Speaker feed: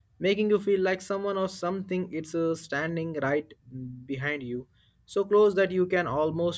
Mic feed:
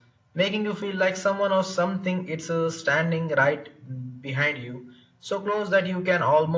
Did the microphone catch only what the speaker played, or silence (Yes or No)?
Yes